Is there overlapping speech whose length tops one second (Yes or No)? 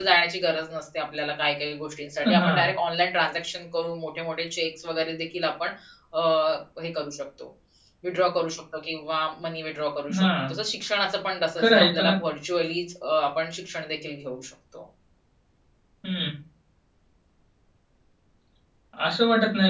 No